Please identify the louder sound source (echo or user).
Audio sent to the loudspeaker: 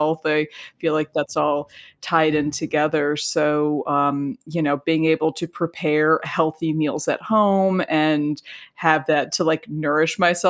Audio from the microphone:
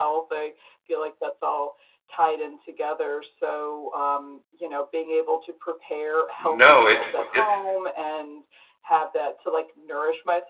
user